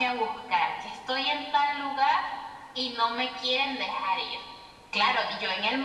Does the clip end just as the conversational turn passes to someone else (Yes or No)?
No